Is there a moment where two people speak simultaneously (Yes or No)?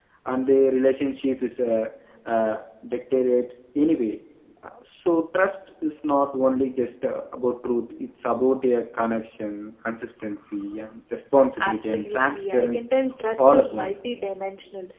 Yes